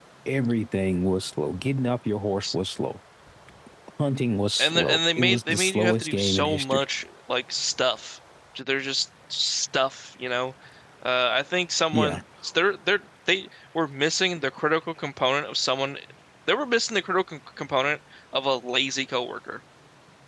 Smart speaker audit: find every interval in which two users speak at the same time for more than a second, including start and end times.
4.6-6.8

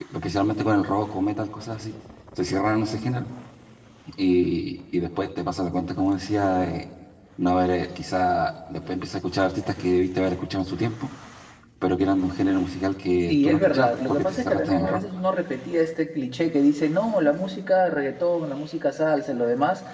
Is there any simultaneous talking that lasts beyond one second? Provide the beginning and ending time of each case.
13.3-15.0

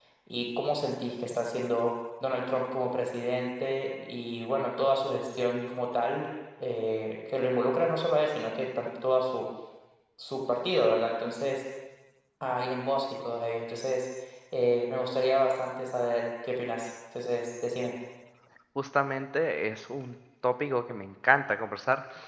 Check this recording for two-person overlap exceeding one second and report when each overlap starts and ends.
none

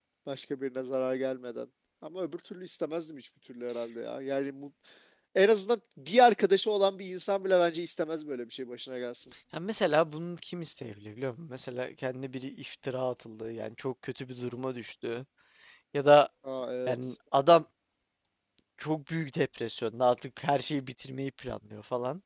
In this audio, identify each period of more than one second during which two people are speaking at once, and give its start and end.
none

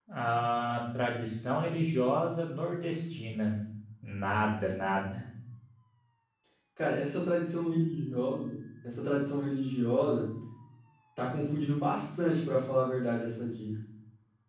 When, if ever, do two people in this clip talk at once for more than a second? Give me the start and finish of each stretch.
none

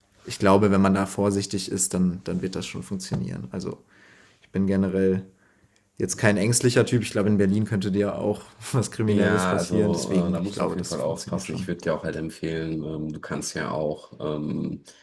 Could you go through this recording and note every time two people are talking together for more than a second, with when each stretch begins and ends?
9.1-11.7

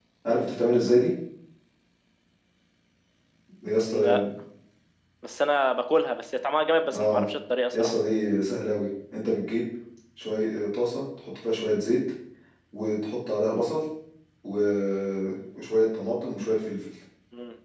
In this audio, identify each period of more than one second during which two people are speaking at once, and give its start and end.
none

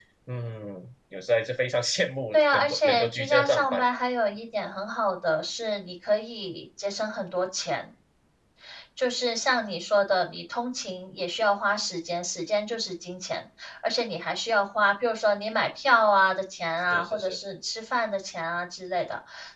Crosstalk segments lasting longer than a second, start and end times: 2.3-3.8

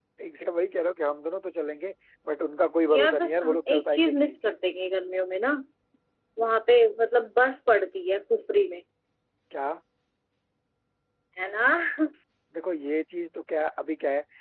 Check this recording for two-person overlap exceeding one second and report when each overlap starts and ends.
2.9-4.4

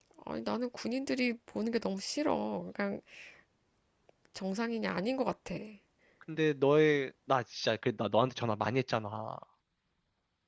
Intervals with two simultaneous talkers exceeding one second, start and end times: none

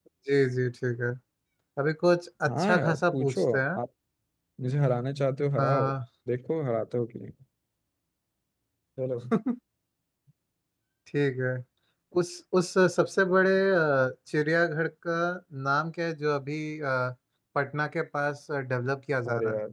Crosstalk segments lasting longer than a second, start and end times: 2.5-3.8

